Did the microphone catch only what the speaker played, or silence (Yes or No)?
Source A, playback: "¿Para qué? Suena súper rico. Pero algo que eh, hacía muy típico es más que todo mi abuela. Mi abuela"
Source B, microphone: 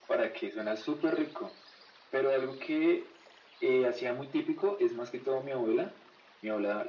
Yes